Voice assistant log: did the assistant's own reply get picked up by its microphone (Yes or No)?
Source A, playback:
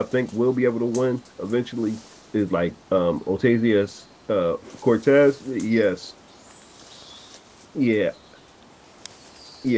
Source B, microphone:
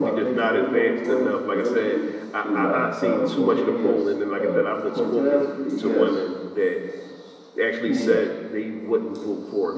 Yes